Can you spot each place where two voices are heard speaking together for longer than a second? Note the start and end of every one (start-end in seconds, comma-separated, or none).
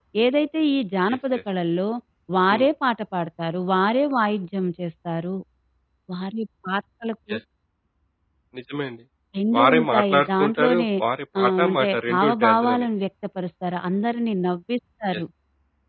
9.6-10.9, 11.4-12.9